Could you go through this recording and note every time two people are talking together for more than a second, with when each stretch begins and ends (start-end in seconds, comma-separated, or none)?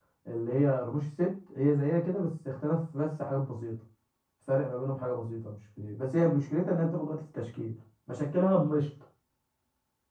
none